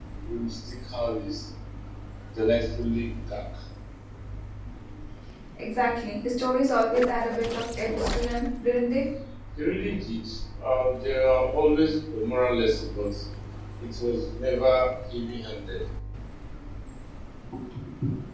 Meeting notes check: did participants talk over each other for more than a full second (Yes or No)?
No